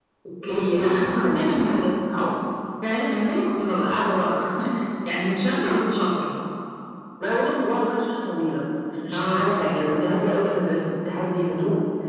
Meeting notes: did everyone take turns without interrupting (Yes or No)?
No